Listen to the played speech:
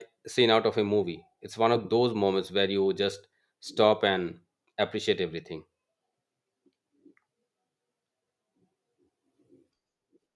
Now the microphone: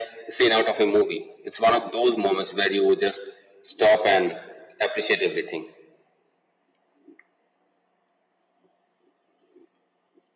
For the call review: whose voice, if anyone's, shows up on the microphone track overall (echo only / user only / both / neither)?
echo only